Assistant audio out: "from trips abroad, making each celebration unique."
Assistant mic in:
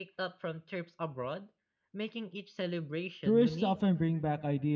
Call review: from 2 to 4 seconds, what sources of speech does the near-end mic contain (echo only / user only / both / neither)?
both